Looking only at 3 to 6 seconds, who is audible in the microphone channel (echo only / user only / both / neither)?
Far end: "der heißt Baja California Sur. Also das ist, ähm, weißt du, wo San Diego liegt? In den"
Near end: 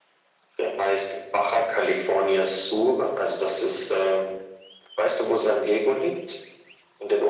echo only